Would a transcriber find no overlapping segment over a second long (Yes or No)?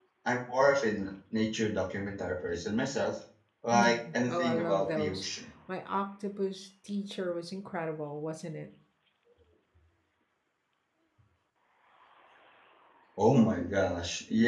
No